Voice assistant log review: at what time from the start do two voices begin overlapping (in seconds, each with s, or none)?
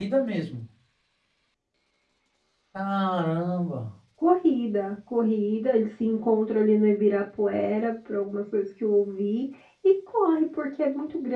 none